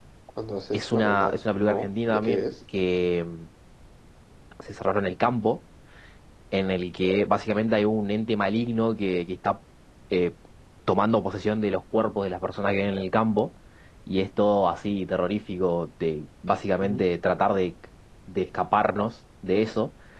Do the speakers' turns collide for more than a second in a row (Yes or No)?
Yes